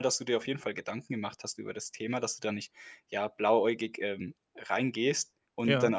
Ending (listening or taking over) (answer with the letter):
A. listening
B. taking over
A